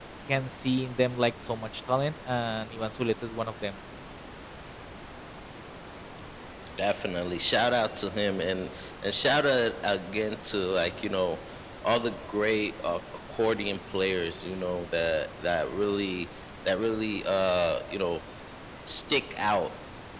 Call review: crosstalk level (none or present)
none